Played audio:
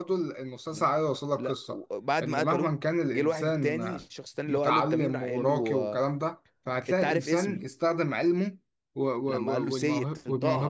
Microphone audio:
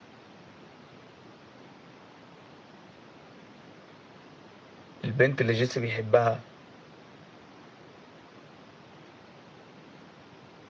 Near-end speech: present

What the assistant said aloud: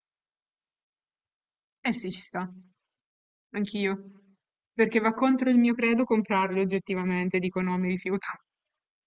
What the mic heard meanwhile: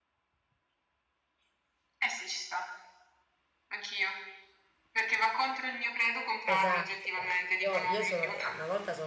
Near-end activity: present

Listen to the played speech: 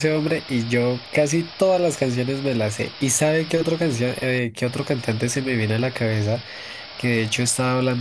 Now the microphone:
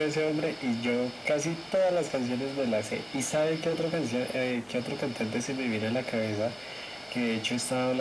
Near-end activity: none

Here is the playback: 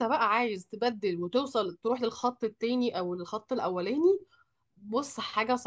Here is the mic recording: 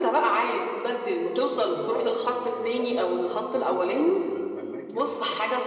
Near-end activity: present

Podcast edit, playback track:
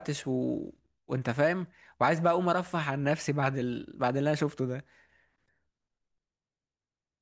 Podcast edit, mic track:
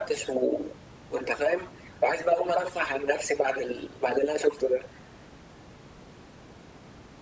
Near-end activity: none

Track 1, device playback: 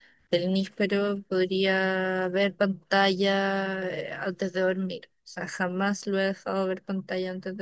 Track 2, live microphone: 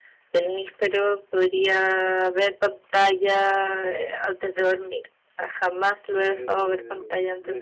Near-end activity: present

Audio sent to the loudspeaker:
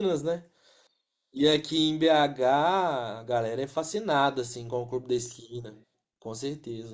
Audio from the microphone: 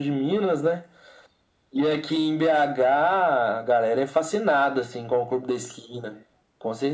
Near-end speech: none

